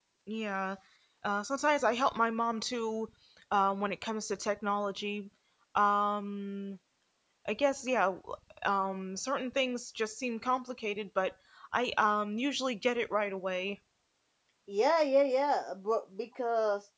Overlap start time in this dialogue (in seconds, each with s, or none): none